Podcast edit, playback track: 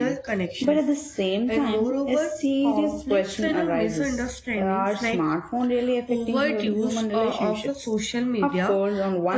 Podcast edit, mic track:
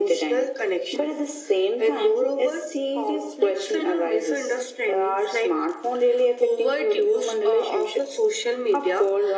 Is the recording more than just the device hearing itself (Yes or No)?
No